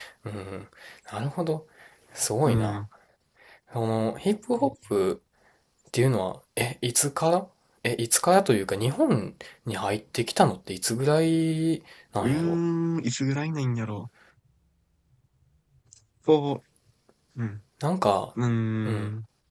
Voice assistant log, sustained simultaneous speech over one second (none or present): none